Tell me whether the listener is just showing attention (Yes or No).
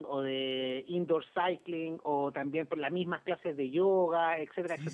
No